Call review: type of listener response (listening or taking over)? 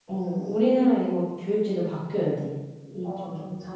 taking over